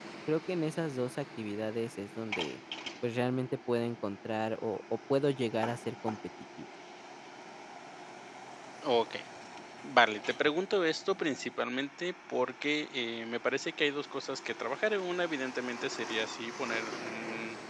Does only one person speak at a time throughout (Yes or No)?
Yes